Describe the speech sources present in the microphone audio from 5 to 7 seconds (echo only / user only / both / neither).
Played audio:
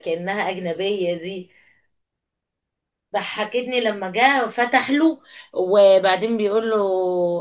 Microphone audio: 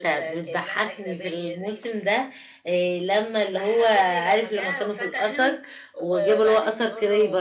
both